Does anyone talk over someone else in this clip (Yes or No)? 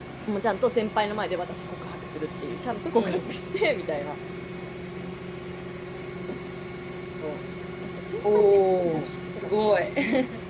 Yes